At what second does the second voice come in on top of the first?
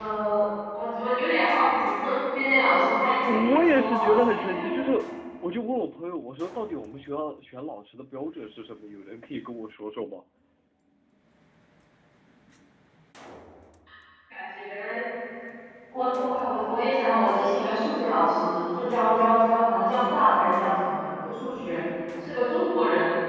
3.3 s

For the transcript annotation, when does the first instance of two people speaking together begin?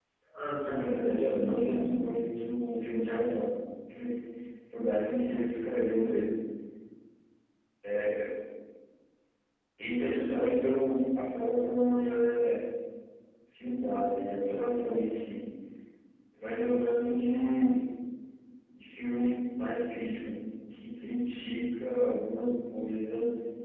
0.7 s

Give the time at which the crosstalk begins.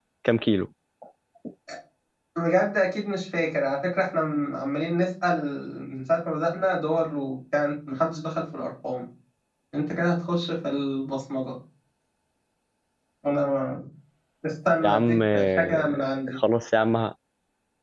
14.8 s

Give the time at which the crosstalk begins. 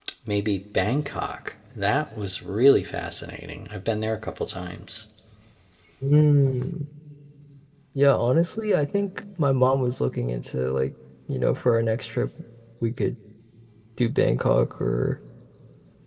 none

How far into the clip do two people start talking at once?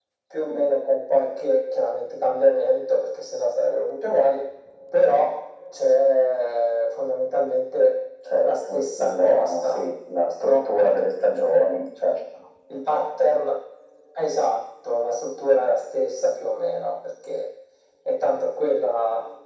8.4 s

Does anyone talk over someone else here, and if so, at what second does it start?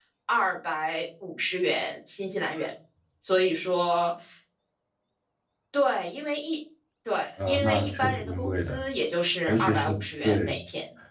7.4 s

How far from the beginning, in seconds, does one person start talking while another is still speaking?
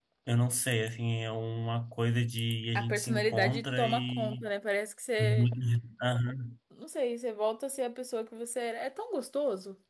2.8 s

